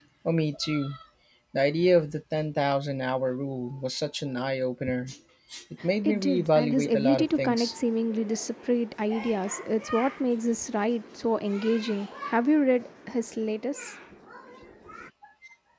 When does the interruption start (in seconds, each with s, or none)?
6.0 s